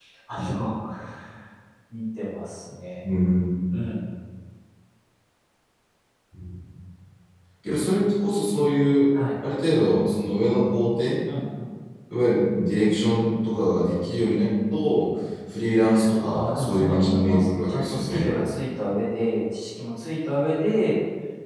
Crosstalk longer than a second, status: present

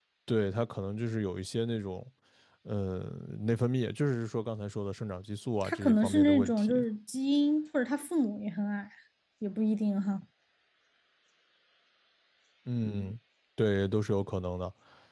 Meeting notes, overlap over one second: present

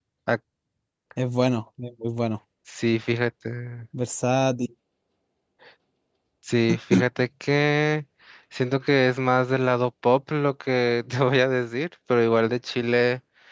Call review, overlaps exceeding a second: none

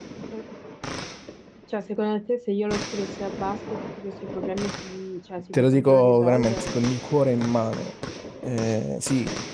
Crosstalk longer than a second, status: present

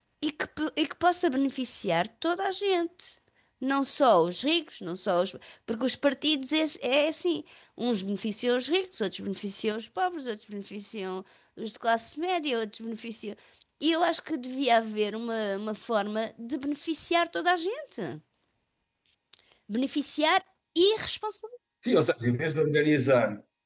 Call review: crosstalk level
none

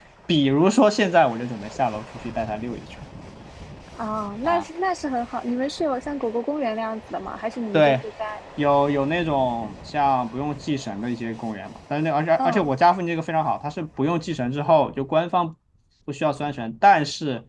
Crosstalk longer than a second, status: none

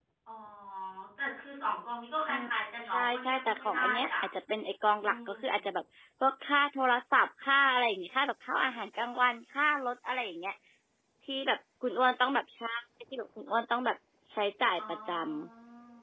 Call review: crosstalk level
present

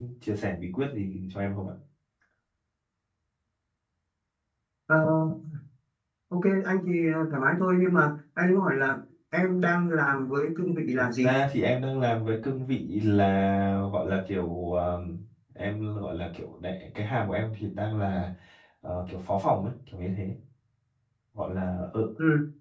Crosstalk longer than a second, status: none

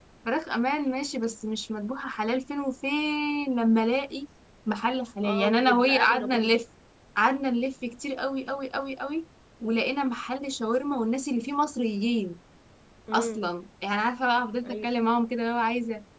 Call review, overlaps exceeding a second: present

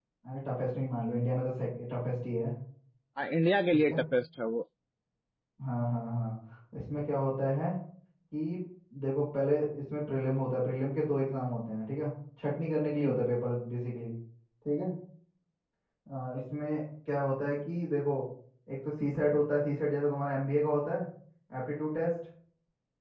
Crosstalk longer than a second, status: none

